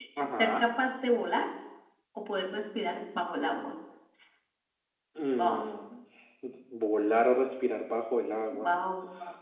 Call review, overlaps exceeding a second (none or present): none